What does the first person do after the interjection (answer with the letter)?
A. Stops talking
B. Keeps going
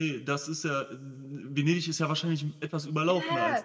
A